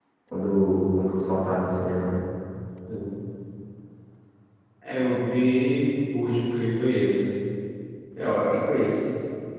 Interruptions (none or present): none